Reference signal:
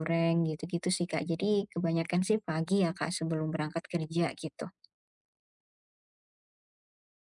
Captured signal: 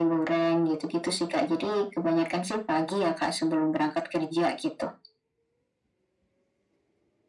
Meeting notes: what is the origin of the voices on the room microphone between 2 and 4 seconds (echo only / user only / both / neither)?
echo only